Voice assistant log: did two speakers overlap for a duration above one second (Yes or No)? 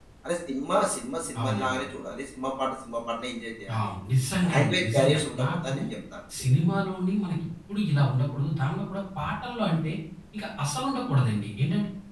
Yes